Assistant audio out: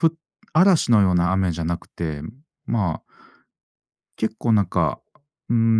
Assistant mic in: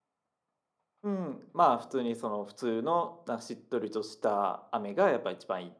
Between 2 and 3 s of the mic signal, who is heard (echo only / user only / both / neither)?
user only